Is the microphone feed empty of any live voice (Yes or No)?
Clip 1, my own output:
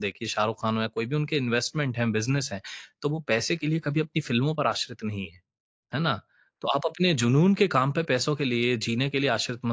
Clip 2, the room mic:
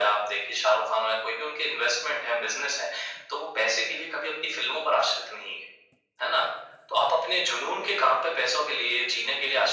Yes